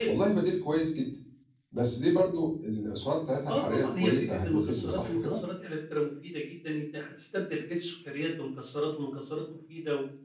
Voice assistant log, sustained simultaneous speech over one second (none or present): present